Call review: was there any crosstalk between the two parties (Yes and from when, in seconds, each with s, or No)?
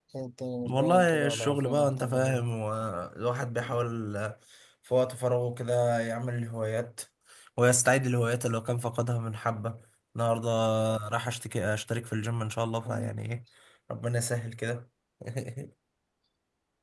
Yes, from 0.7 s